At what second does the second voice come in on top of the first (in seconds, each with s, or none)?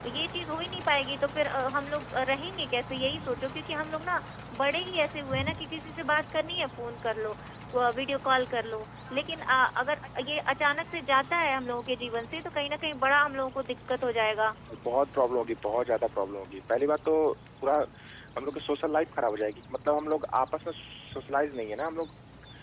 none